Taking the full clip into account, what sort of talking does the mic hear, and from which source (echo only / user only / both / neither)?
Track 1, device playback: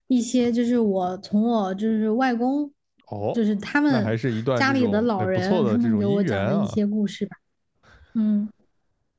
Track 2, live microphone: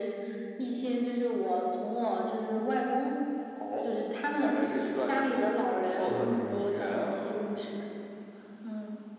both